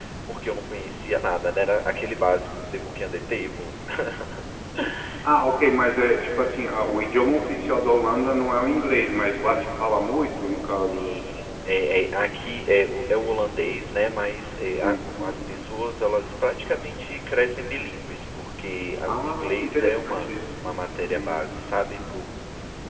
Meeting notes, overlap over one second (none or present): present